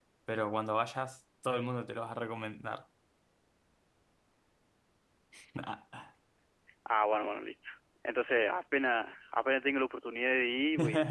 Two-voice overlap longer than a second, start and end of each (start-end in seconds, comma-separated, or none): none